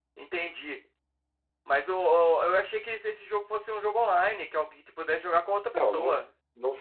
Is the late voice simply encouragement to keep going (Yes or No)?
No